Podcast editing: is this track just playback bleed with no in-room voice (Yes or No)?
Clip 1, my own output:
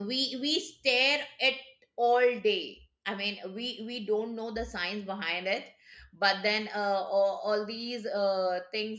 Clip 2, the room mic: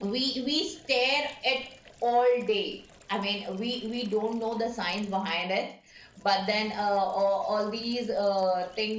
Yes